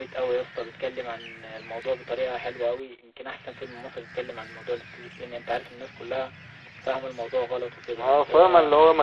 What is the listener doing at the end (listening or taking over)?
taking over